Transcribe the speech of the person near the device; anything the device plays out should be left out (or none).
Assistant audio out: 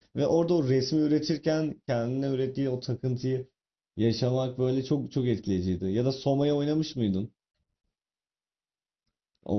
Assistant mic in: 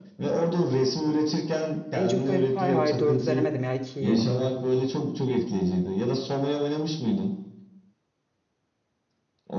Age of Empire hayır 4'ü denemedim ya 2'yi oynadım ben.